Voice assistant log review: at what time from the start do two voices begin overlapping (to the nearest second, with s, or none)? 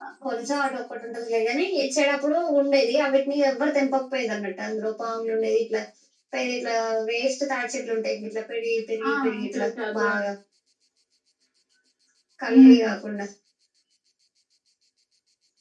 9 s